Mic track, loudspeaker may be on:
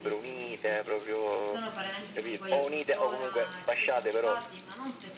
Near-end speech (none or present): present